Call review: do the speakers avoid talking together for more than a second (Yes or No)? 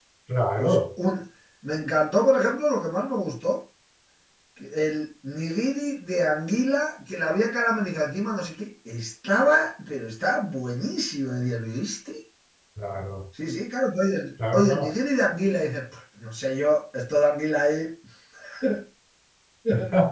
Yes